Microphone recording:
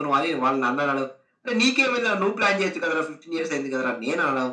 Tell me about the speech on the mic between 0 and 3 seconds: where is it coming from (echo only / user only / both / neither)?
echo only